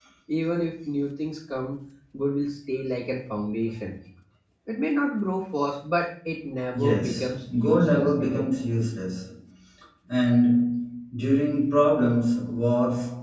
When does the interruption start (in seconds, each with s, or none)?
6.7 s